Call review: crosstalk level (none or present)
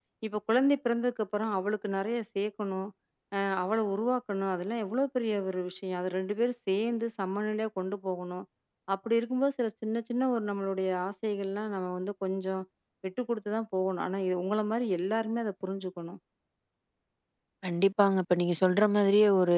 none